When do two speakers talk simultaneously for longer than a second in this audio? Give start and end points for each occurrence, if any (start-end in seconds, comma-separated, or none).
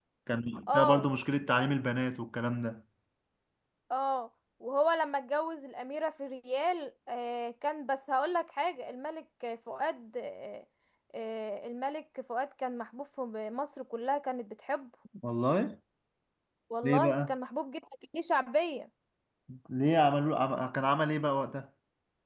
none